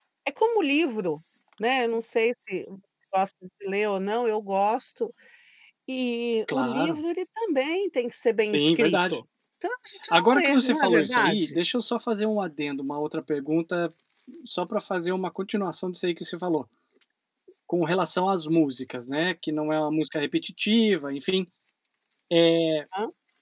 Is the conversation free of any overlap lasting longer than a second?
No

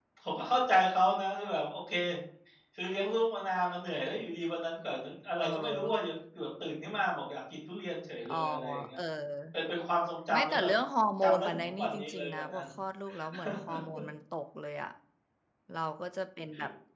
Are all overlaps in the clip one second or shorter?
No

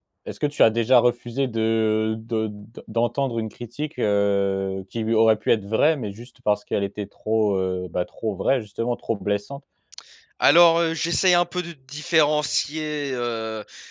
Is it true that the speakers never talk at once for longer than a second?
Yes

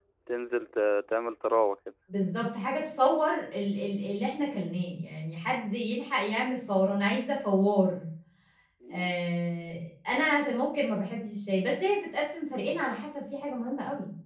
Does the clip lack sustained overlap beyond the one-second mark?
Yes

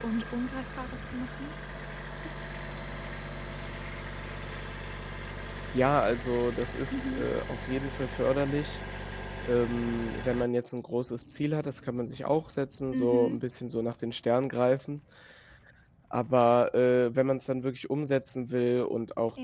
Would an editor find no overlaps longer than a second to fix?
Yes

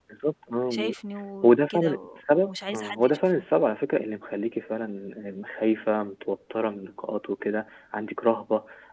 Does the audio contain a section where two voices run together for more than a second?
Yes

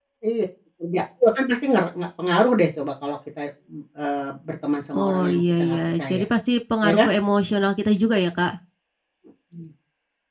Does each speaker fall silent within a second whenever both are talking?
No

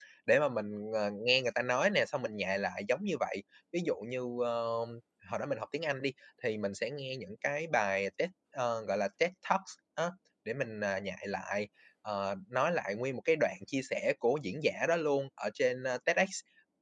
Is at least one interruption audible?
No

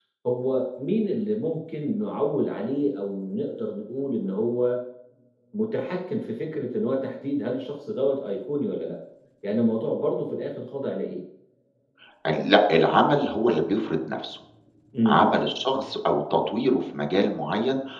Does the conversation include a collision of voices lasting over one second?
No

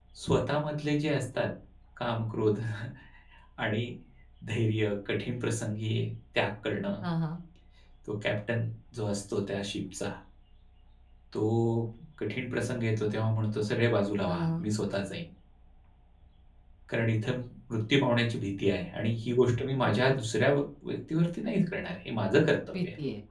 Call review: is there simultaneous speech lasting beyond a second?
No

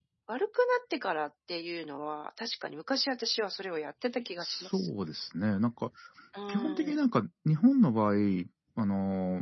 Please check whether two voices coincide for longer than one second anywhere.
No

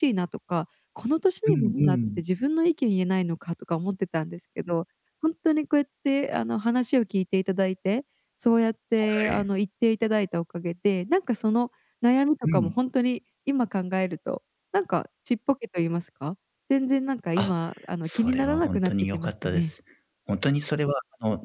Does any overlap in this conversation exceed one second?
Yes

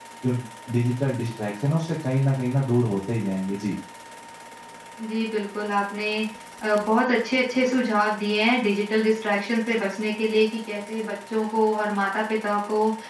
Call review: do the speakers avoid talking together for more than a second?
Yes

